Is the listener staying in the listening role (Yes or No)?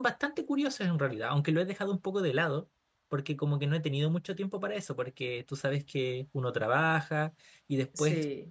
Yes